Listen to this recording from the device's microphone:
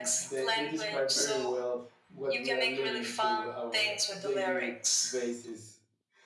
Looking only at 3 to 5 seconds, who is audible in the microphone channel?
both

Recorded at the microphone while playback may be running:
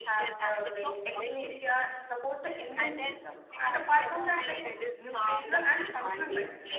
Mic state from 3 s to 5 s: both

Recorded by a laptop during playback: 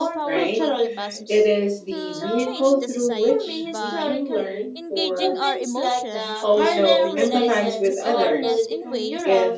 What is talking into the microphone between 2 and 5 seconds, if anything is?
both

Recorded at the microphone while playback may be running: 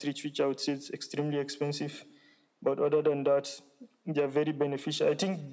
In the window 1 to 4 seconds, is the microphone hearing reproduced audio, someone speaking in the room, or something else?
echo only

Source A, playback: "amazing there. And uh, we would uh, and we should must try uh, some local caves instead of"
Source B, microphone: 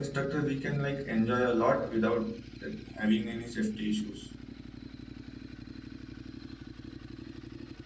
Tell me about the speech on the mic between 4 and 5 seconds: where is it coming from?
user only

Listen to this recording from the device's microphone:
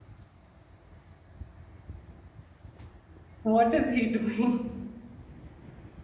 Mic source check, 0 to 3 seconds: neither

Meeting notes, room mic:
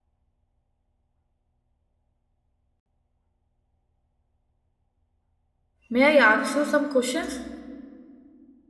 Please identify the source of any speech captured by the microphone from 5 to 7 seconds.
user only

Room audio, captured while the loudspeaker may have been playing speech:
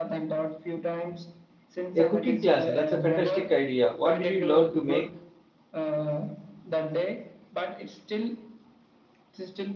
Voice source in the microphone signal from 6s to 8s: echo only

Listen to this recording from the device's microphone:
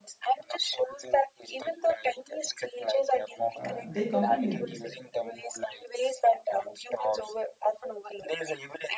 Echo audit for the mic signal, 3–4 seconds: both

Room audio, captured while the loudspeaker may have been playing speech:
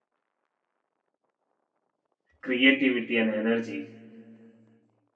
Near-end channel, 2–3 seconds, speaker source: user only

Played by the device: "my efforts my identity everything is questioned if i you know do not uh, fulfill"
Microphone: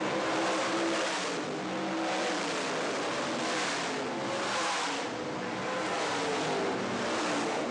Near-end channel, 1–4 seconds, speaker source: neither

